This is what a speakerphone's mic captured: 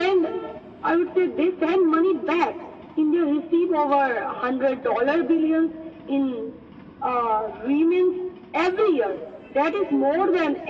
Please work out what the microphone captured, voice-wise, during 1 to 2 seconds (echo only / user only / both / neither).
echo only